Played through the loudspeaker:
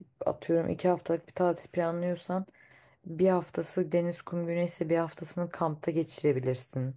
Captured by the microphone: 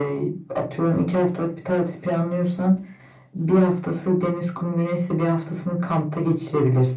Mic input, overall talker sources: echo only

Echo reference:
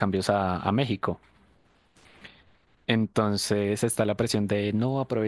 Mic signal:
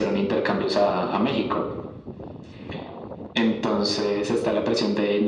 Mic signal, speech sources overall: echo only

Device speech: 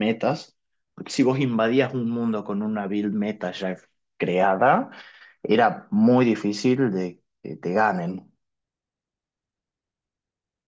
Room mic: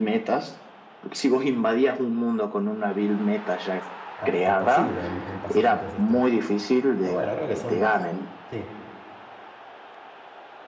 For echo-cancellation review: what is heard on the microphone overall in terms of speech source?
both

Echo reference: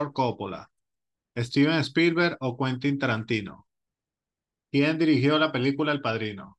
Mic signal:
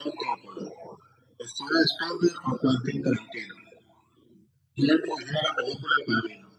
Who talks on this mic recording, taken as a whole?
echo only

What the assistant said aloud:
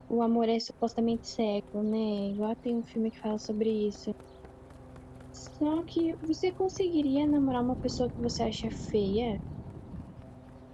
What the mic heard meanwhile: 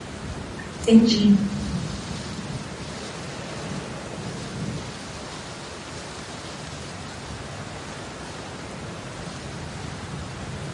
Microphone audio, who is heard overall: user only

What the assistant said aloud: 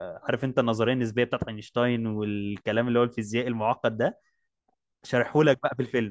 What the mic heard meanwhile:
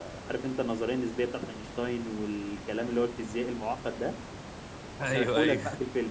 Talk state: both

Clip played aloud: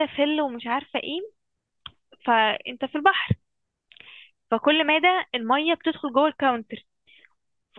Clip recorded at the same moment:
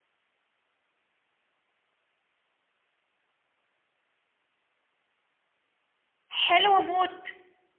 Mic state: user only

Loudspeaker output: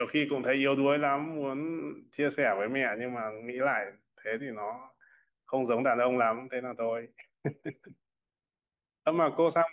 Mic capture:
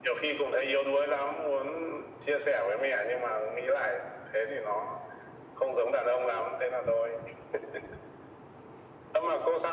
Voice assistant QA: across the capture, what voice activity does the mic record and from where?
echo only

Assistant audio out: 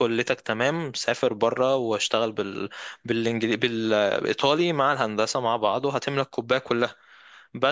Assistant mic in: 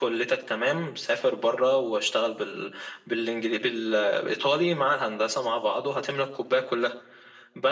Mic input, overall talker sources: echo only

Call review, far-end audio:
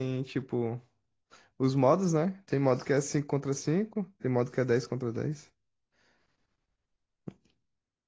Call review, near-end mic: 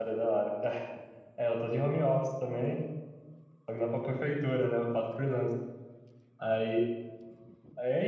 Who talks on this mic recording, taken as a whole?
user only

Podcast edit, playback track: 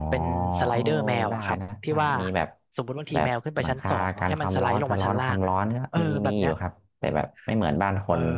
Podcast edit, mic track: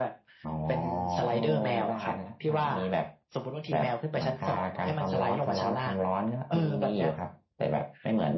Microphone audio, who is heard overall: echo only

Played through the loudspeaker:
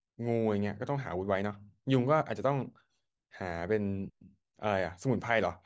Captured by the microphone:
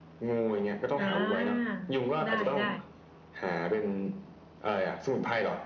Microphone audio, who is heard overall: both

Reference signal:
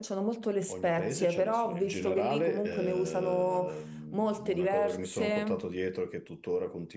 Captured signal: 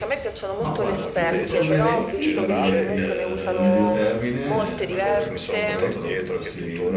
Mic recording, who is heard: both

